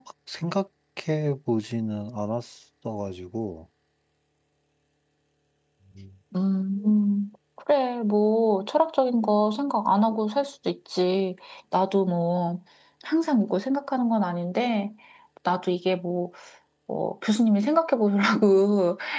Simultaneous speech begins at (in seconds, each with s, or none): none